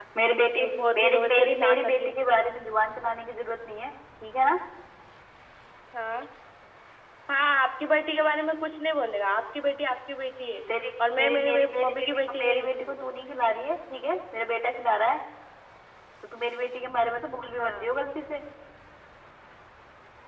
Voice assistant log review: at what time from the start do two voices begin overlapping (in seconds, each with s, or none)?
0.6 s